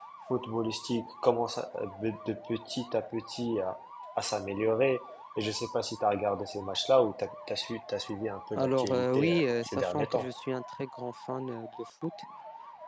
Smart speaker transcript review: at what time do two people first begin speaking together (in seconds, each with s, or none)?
8.6 s